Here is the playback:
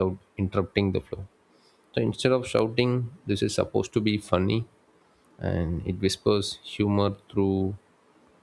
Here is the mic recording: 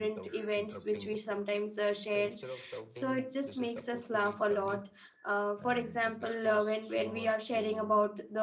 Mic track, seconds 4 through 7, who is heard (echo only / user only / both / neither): both